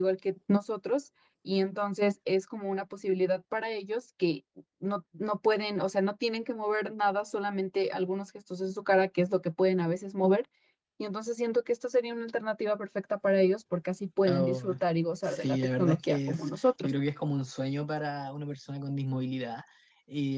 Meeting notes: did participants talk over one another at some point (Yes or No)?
Yes